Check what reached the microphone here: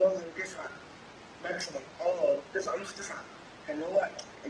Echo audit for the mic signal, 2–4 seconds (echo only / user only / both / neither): echo only